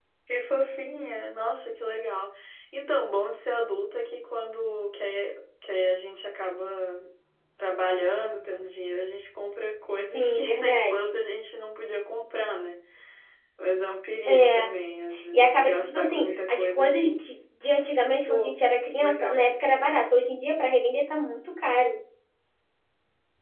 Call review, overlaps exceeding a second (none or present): present